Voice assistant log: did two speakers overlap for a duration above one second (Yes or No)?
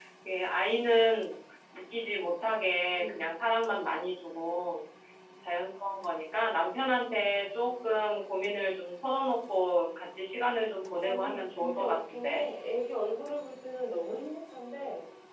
Yes